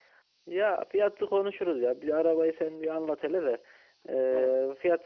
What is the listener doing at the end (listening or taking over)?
listening